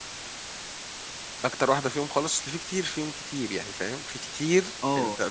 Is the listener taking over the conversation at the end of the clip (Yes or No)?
Yes